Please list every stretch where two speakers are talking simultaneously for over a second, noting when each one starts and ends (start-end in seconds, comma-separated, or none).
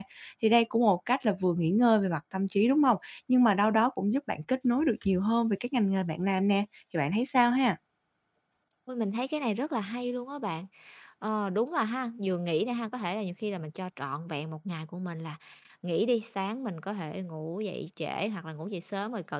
none